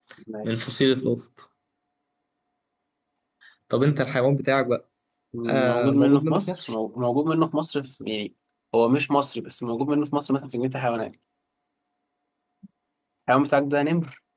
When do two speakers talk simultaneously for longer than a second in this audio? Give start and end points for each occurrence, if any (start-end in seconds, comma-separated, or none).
5.5-6.7